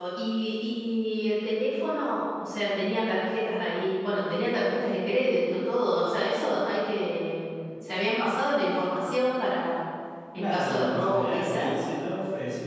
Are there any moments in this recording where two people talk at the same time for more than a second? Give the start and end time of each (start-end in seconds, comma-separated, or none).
10.4-11.7